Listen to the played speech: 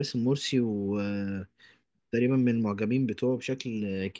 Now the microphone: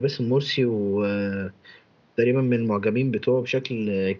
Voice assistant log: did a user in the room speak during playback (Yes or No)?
No